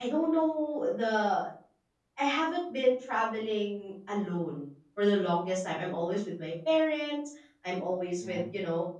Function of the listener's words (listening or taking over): listening